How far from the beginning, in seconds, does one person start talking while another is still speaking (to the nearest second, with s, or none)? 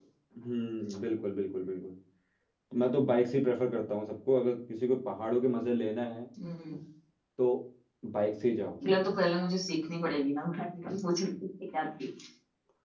none